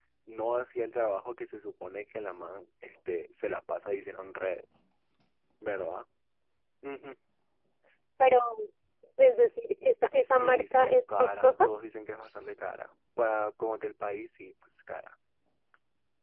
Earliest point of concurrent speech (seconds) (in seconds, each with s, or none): 10.2 s